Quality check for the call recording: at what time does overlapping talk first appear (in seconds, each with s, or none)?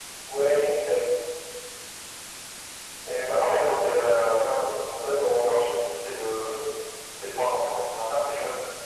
3.3 s